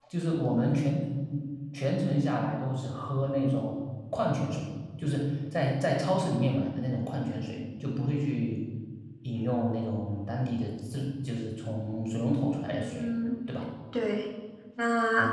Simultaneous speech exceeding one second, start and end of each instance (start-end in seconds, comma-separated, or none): none